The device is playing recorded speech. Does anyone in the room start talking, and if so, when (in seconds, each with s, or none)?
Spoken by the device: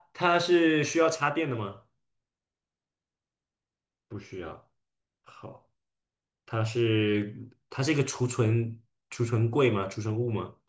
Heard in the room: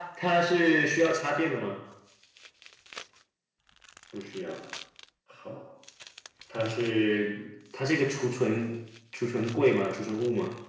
none